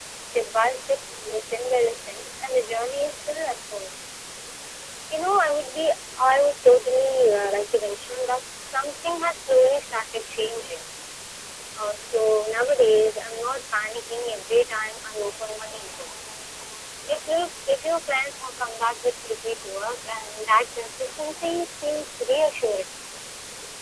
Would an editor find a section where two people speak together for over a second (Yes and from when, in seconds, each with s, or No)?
No